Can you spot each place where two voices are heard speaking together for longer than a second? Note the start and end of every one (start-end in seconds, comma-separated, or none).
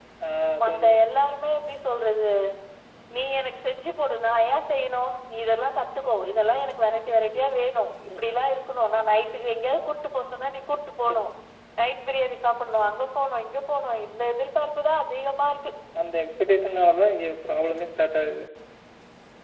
none